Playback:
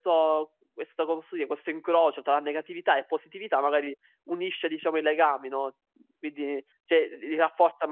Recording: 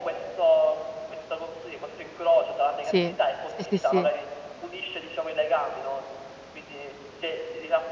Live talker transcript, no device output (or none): Sì. Sì, sì, sì.